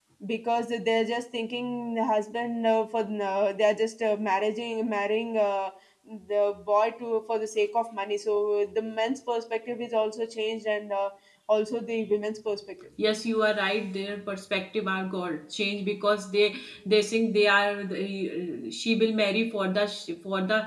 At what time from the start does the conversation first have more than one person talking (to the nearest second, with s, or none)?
none